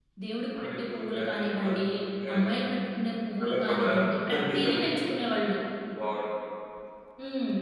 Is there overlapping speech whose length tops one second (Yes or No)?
Yes